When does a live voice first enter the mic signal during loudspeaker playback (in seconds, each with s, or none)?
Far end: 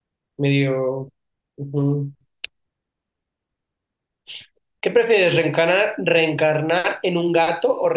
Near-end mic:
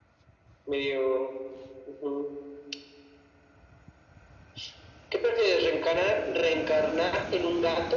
none